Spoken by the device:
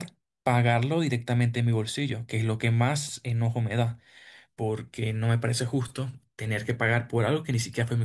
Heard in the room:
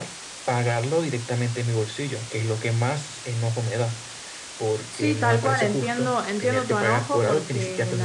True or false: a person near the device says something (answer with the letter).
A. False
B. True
B